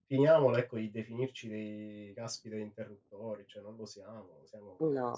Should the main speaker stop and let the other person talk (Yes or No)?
Yes